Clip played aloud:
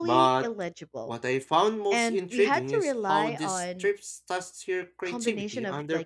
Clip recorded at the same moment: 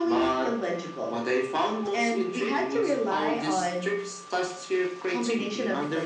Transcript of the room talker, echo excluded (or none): none